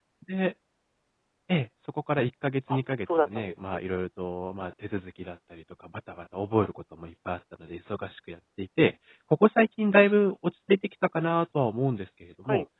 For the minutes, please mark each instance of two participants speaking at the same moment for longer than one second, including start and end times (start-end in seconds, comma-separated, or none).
2.7-4.1